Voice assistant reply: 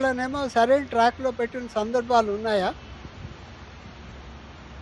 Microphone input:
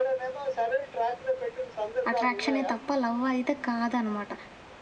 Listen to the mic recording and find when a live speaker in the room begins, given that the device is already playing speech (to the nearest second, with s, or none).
2 s